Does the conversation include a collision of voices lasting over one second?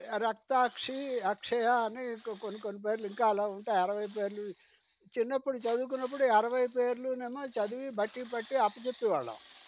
No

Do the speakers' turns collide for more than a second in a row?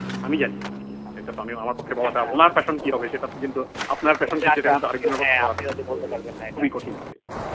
Yes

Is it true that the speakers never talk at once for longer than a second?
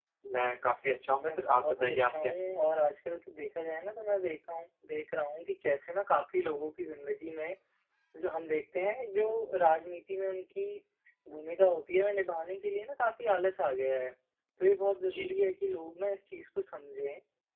No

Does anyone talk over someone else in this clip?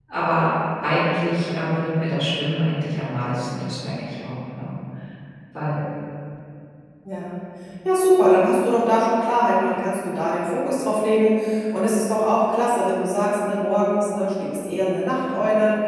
No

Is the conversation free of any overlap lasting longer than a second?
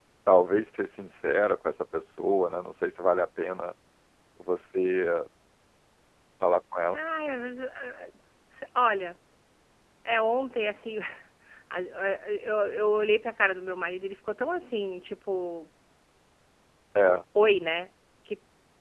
Yes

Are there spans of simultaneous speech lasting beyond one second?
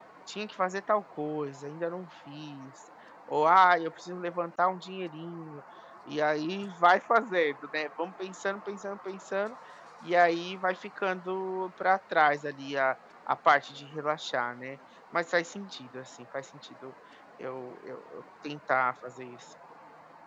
No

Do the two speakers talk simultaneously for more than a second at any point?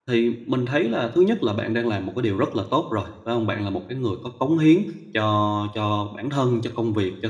No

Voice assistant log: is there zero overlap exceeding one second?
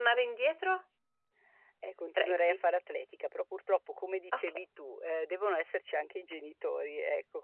Yes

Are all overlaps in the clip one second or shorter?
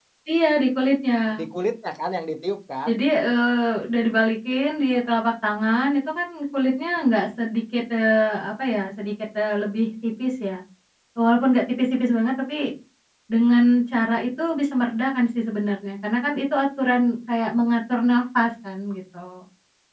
Yes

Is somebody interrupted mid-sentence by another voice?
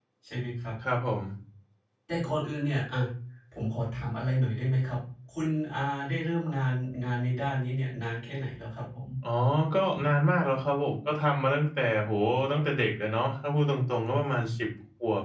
No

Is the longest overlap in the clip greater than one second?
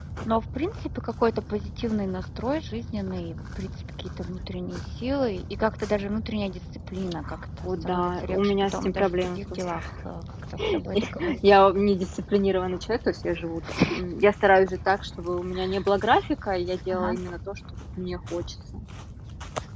Yes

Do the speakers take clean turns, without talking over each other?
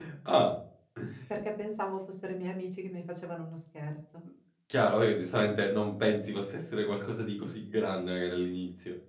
Yes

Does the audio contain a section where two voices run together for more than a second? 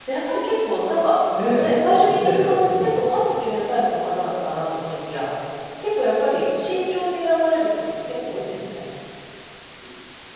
Yes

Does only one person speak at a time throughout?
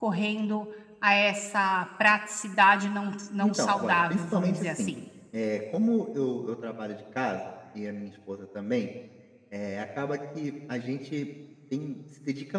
No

